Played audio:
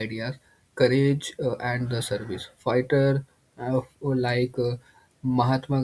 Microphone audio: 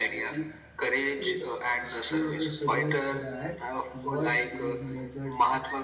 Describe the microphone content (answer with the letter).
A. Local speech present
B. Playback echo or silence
A